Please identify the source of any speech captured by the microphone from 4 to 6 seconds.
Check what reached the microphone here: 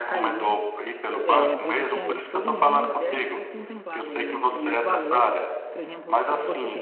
both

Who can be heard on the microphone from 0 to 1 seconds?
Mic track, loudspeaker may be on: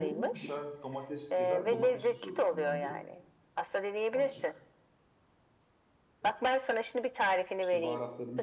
both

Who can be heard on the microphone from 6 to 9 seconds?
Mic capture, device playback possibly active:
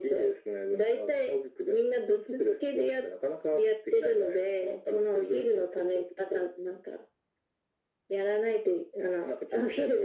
echo only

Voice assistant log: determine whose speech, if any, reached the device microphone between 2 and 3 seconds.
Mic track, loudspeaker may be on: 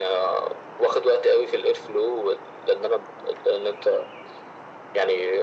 echo only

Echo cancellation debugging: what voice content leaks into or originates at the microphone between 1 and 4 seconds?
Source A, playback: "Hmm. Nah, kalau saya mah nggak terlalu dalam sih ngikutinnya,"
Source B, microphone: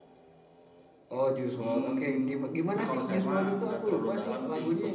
both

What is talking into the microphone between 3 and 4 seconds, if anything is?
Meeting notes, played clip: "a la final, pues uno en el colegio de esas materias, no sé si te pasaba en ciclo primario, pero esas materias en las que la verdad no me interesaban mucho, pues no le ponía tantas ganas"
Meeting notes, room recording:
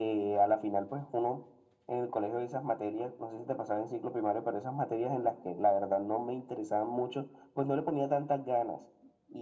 echo only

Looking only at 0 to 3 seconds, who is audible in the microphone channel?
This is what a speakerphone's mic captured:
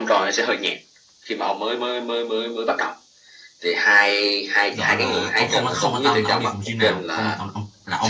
echo only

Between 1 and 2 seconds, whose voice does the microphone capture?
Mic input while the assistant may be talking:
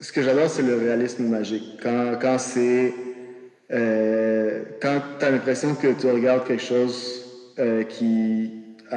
echo only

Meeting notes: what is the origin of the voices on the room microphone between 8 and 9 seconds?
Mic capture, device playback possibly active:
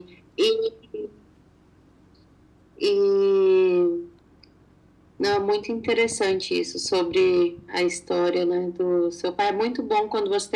echo only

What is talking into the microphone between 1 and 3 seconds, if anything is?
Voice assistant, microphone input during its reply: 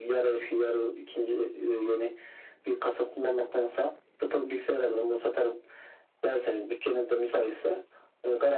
echo only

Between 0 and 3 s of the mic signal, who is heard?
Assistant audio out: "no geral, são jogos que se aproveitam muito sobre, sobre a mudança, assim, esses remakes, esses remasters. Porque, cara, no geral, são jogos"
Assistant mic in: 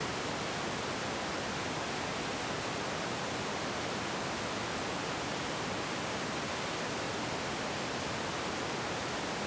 neither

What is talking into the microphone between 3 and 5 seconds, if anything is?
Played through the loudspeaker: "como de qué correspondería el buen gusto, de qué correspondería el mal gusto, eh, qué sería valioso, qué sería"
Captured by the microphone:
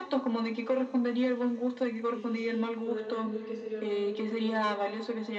both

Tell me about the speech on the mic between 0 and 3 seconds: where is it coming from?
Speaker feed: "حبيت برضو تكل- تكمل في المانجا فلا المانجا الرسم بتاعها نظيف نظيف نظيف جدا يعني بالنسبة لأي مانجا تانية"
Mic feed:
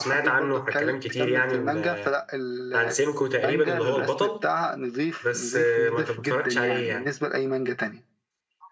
both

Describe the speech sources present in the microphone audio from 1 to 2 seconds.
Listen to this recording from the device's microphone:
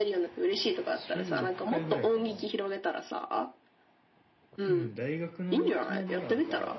both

